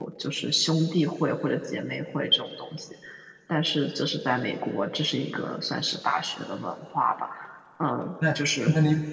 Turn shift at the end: Yes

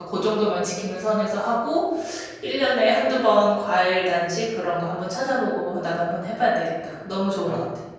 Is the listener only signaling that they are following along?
No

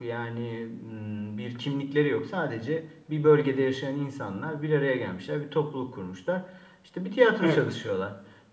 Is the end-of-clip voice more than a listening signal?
No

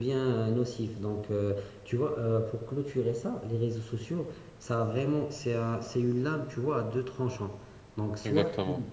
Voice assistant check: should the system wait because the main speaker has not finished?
Yes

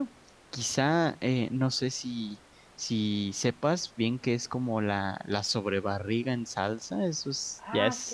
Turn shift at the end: Yes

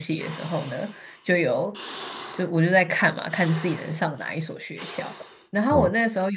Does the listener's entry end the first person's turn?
No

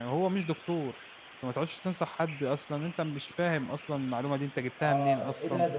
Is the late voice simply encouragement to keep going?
No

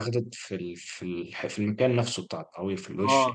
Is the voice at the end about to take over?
Yes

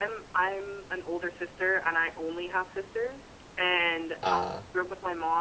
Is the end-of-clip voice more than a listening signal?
No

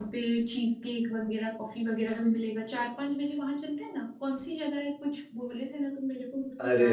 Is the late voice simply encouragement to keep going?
No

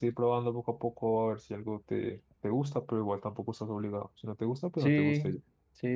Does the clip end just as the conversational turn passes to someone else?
Yes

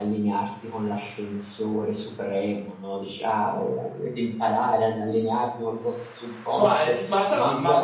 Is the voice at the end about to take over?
Yes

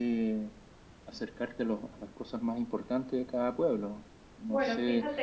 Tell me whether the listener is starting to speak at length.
Yes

